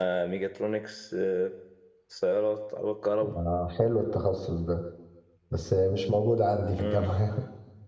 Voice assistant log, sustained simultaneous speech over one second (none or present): none